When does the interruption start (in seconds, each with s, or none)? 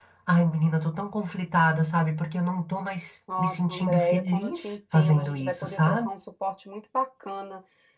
3.3 s